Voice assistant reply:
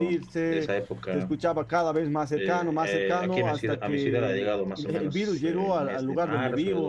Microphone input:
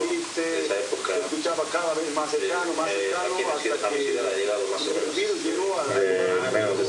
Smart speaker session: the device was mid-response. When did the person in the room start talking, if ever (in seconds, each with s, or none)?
5.8 s